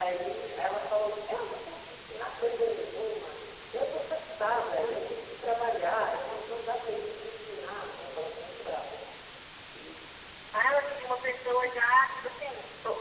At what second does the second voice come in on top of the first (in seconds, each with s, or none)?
none